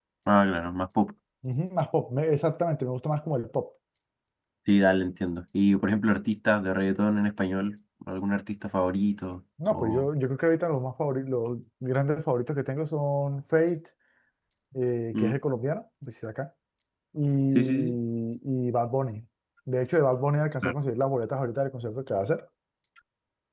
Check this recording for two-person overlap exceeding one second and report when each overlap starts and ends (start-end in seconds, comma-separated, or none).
none